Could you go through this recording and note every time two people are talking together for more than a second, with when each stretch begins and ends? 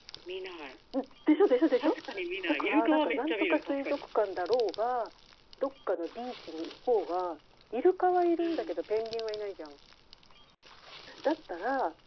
2.5-4.0

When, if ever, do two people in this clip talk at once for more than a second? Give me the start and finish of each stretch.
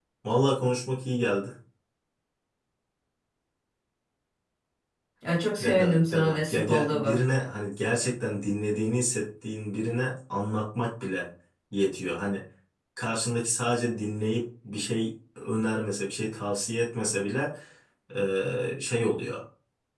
5.6-7.2

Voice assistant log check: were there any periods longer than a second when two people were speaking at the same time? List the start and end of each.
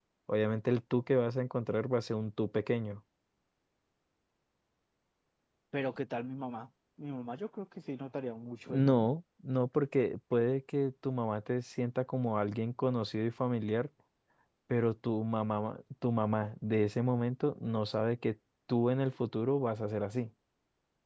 none

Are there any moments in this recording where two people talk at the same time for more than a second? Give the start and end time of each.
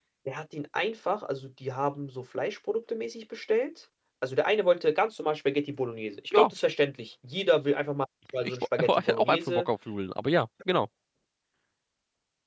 8.4-9.6

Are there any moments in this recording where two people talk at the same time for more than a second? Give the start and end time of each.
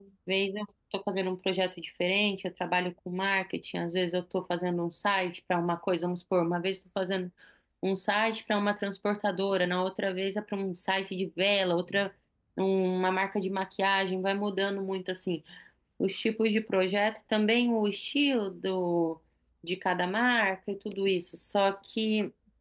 none

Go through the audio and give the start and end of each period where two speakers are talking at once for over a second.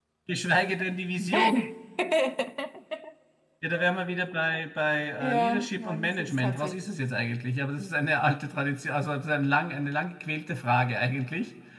5.2-6.7

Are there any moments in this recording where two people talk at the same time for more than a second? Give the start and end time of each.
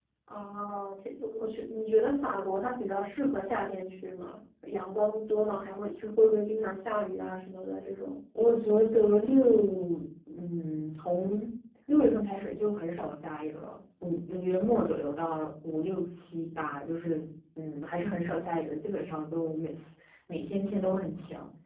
none

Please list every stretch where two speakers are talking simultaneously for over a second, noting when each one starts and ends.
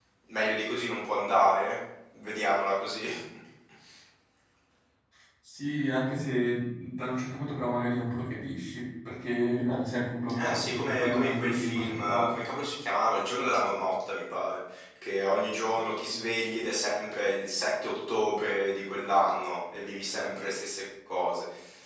10.3-12.4

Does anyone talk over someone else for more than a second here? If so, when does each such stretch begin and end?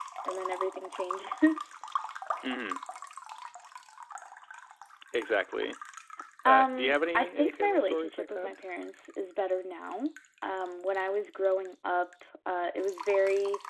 6.4-8.5

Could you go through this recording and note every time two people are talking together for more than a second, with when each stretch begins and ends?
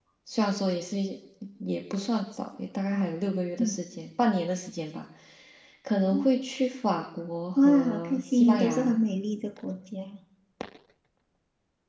7.6-8.9

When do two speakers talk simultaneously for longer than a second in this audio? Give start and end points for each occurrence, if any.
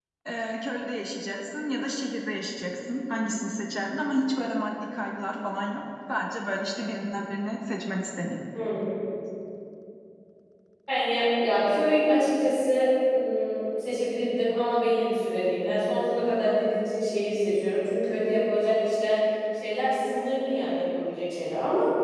none

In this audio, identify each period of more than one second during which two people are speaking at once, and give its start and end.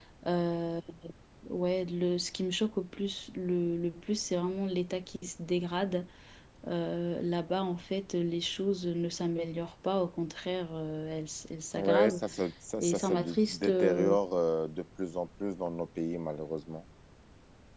12.8-14.2

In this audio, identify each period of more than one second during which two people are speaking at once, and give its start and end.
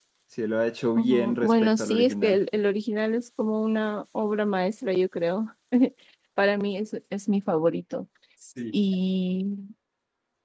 1.0-2.4

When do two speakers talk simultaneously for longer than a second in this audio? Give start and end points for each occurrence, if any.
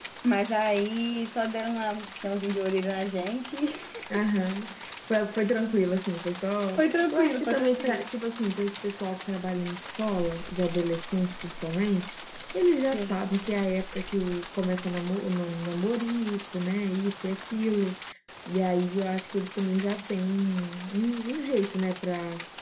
6.8-8.0

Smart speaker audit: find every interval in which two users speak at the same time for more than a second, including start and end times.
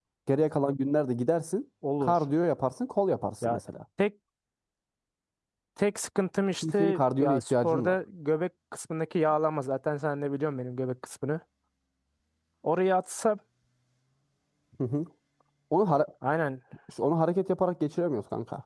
6.6-8.0

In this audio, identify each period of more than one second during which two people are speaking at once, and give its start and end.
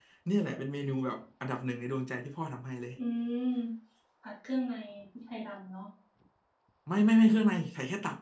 none

